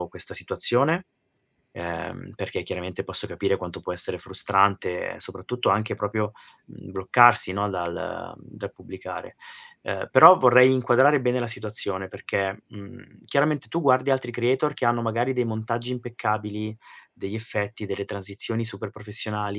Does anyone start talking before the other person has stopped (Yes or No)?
No